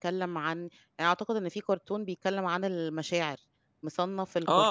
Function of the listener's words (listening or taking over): taking over